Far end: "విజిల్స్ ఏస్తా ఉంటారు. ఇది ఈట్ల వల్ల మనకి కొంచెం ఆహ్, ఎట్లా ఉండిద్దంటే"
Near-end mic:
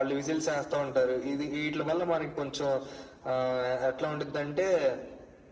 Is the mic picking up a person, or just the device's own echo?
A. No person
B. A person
A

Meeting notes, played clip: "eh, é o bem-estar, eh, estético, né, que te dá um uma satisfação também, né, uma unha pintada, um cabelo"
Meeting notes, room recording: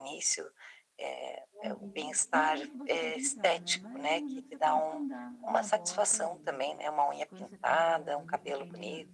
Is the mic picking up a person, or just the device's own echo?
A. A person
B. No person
A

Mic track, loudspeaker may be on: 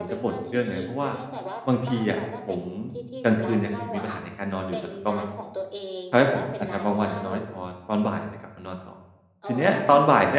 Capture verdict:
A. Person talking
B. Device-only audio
A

